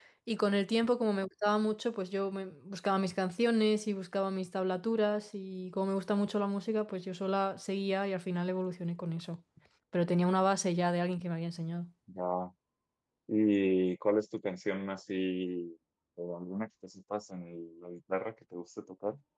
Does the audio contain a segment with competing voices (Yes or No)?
No